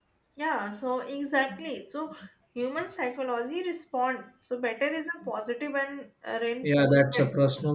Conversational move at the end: taking over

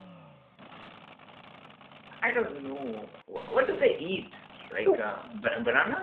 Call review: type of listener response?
listening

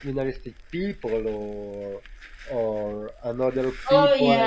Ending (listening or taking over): listening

